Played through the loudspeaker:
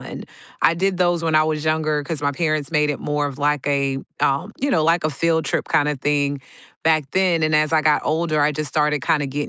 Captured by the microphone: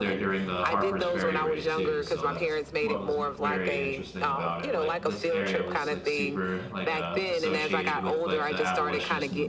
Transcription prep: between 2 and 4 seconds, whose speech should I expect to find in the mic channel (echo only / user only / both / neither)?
both